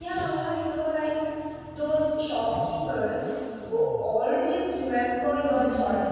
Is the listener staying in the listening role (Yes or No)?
No